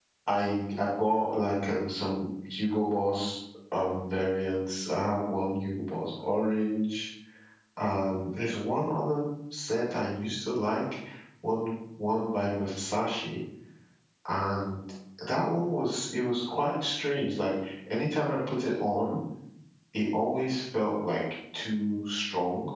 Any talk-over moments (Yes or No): No